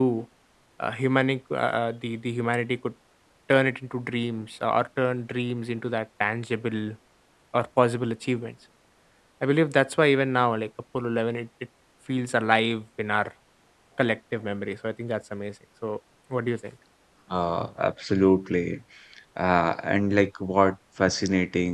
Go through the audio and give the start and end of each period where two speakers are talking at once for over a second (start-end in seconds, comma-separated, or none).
none